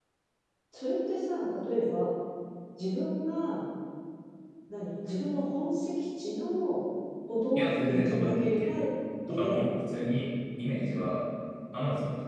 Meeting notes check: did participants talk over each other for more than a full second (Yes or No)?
Yes